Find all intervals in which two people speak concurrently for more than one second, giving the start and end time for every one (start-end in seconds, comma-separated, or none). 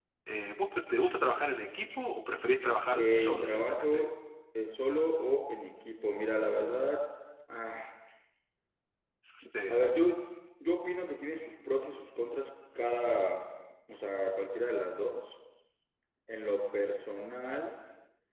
2.6-4.0